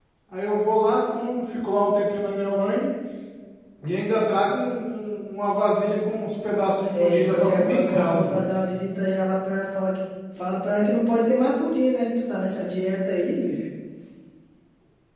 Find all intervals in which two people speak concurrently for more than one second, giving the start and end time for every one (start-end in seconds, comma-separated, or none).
6.9-8.4